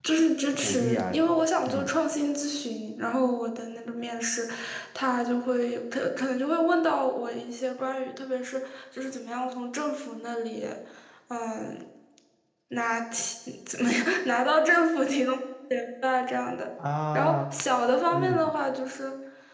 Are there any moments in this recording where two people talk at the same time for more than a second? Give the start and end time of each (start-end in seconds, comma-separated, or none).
0.6-1.9